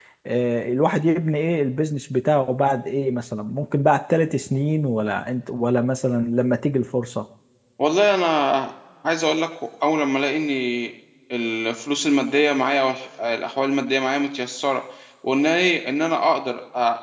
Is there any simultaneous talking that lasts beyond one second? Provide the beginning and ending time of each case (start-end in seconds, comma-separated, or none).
none